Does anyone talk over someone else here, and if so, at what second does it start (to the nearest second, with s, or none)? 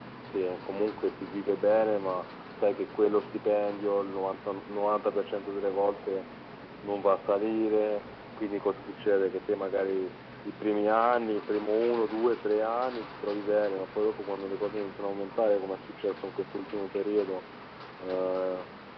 none